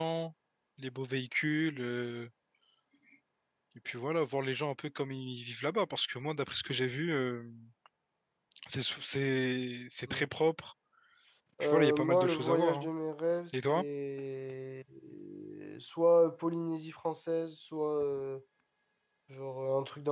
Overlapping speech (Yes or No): Yes